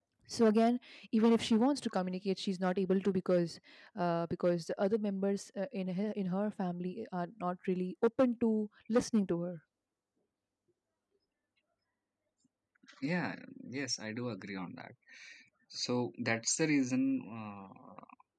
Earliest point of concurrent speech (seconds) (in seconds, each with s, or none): none